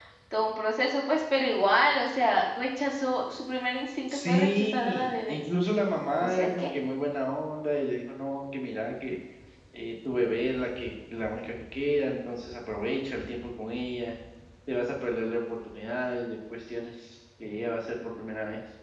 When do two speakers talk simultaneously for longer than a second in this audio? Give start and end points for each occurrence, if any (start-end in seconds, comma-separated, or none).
4.1-5.4